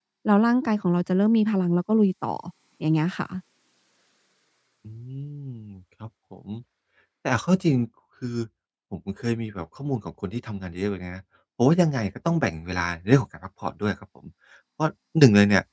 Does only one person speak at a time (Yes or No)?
Yes